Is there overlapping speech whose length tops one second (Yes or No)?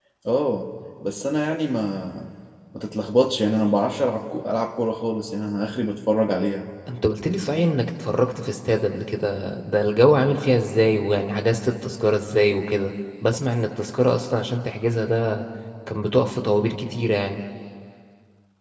No